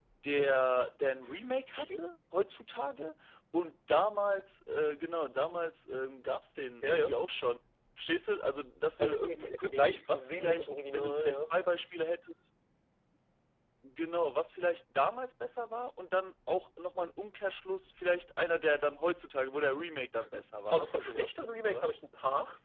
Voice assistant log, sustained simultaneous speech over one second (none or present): present